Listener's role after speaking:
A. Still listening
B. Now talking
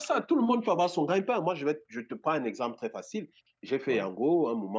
A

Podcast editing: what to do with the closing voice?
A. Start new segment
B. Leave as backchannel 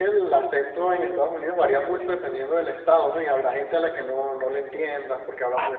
A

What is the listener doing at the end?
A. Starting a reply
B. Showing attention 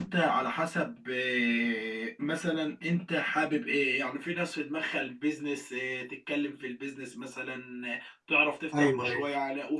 B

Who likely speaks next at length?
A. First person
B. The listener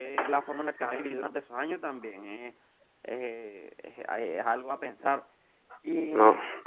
A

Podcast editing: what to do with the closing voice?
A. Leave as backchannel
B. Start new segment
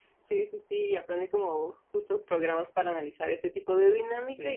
A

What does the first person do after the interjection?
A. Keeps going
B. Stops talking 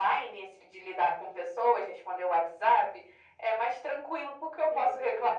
B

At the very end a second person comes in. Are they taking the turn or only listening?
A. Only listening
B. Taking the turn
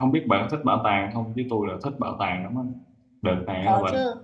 A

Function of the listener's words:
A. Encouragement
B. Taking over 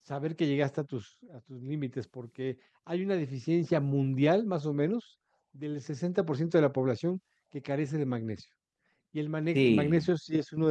A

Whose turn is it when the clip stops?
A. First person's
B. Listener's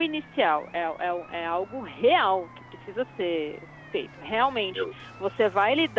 A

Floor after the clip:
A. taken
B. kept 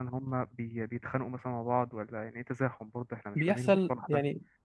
A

